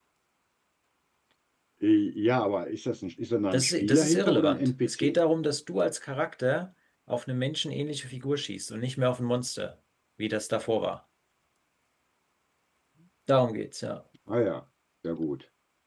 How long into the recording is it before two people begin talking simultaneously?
4 s

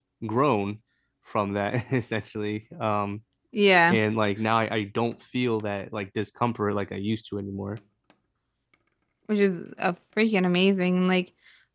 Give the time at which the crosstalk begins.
none

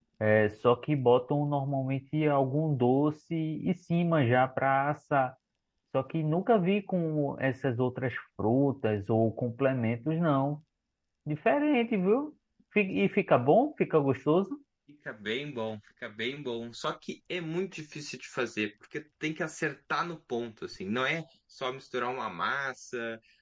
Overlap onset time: none

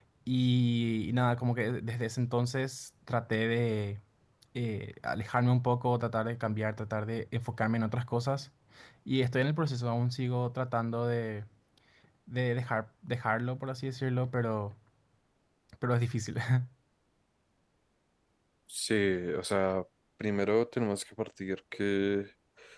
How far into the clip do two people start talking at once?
none

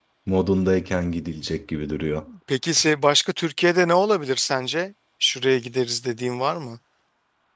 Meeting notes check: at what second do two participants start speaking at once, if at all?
none

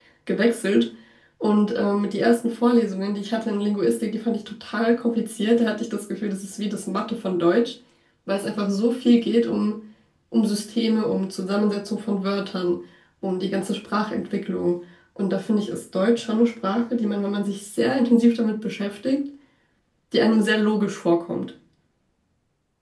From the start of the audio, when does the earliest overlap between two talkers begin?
none

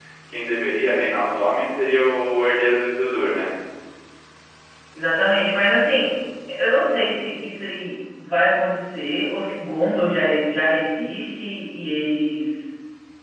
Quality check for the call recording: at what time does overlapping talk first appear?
none

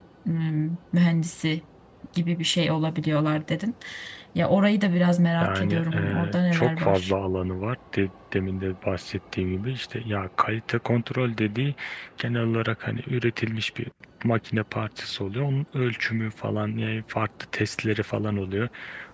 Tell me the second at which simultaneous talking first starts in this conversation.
5 s

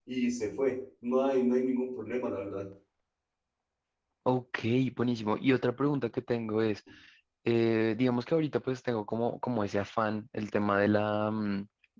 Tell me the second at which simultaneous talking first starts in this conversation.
none

